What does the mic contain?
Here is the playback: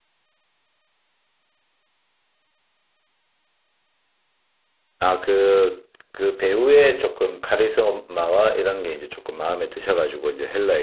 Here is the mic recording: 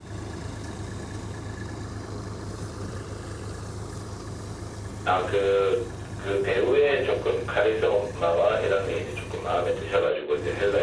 echo only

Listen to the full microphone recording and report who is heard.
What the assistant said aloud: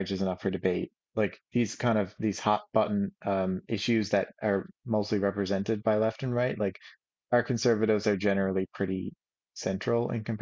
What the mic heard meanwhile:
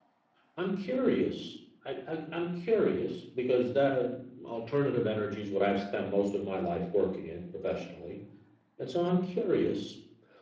user only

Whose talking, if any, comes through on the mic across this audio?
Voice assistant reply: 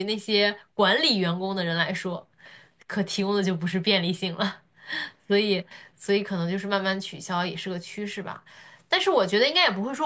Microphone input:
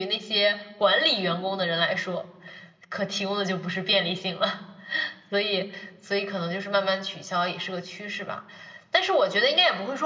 echo only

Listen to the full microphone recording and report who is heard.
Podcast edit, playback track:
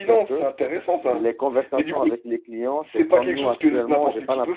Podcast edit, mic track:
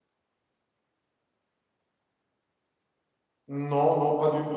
user only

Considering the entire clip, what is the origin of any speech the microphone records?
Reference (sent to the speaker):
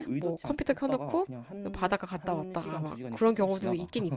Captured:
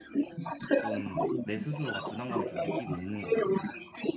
both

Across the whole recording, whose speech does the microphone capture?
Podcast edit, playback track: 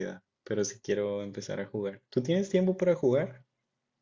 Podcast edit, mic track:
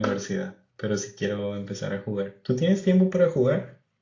echo only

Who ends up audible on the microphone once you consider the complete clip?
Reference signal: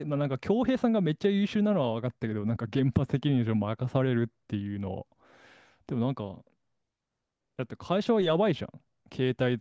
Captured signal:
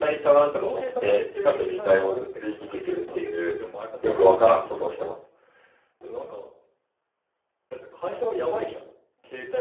both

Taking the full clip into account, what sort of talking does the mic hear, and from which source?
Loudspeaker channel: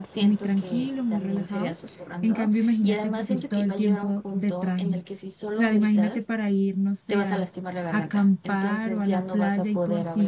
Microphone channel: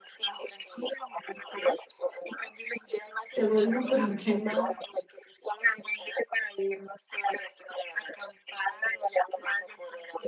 both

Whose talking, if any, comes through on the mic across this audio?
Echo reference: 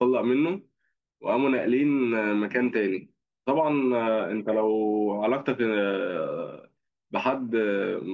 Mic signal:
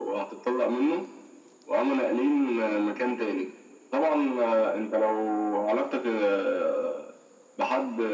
echo only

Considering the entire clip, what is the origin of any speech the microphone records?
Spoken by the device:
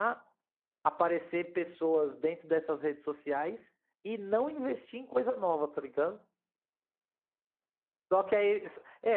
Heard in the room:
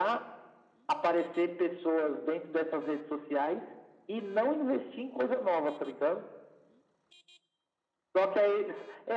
echo only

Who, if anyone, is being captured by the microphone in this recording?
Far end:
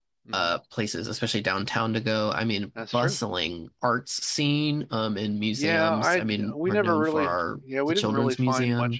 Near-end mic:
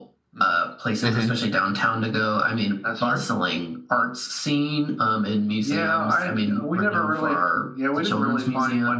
both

